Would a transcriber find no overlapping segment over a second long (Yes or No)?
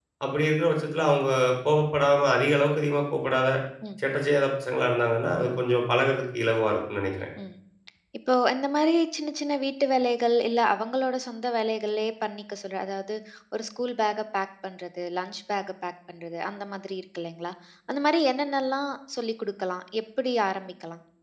Yes